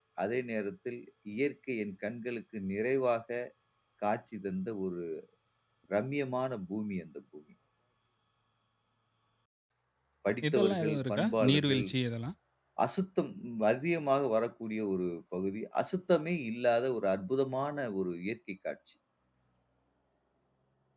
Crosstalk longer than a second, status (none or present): present